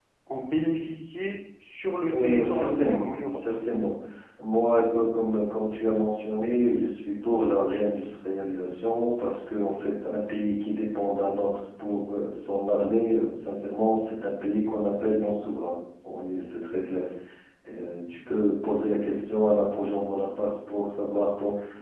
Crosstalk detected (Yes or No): Yes